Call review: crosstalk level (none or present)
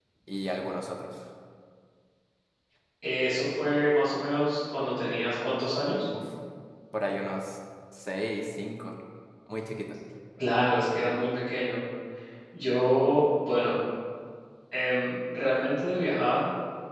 none